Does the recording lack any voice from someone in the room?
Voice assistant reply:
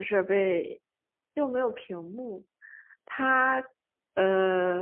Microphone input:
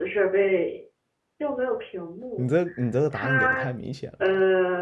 No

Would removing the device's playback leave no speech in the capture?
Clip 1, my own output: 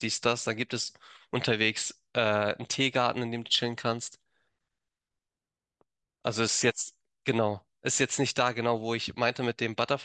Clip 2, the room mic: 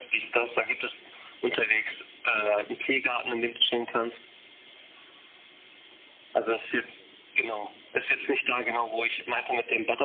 Yes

